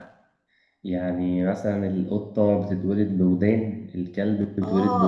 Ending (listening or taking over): taking over